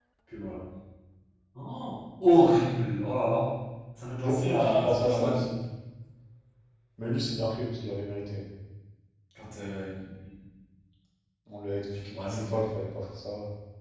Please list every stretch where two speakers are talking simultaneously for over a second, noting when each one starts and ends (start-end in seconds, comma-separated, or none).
4.2-5.4